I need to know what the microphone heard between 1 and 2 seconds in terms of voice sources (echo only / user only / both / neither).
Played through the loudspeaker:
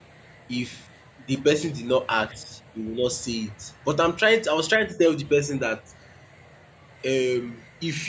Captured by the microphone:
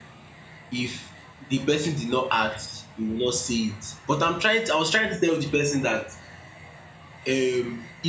echo only